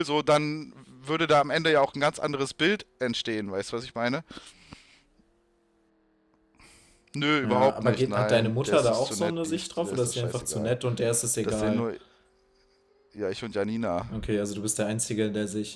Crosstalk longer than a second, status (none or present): present